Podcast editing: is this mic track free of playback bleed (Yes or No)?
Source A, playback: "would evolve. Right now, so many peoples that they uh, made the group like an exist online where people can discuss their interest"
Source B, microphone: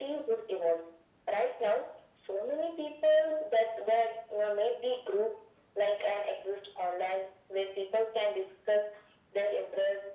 No